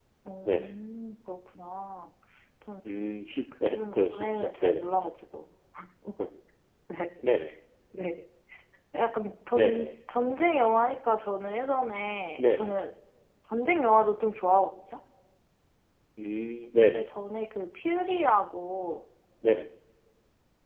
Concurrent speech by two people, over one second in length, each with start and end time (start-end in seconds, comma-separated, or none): 3.6-4.8